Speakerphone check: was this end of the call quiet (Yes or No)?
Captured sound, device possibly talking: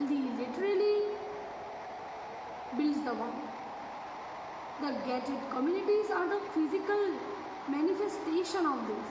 No